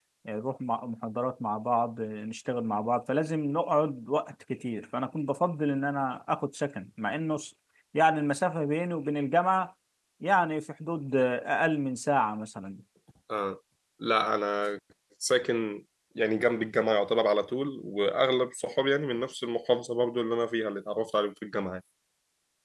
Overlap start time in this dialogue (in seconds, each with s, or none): none